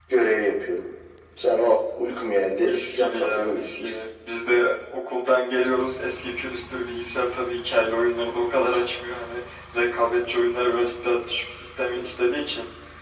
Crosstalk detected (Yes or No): Yes